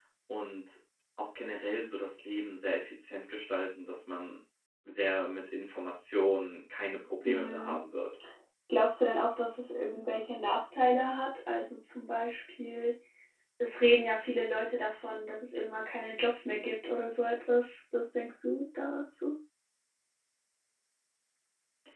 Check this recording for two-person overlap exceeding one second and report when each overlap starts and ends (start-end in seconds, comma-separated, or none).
none